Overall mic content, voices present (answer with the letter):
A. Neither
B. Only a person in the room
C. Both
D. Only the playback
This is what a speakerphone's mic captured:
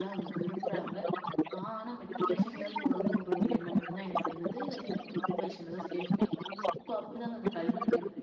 C